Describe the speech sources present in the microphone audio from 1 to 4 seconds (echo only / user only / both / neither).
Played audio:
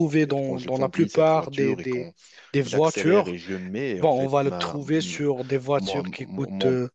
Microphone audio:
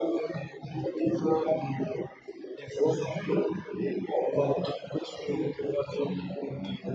echo only